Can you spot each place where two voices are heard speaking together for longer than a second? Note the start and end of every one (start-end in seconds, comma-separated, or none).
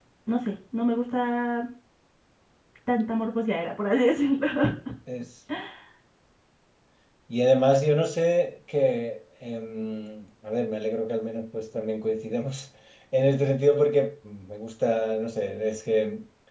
none